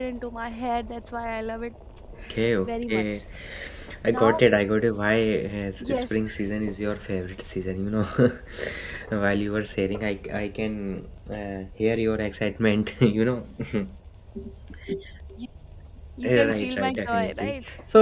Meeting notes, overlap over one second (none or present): present